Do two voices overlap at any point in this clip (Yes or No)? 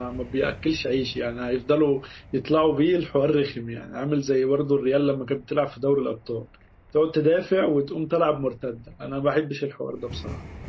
No